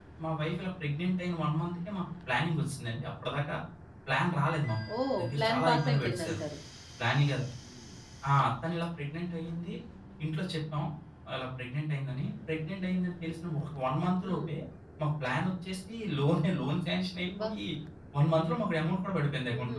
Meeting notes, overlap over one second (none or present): present